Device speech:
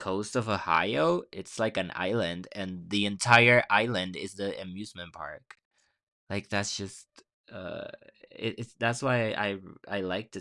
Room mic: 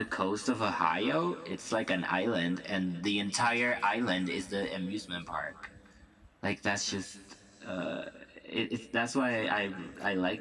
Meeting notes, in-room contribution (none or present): none